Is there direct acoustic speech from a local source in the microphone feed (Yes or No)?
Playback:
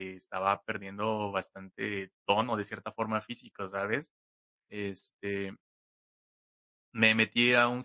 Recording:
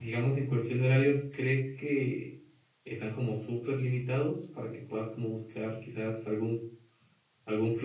Yes